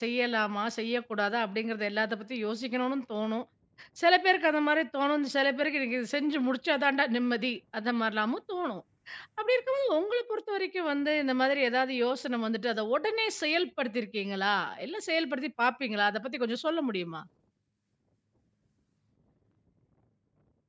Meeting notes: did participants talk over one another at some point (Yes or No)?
No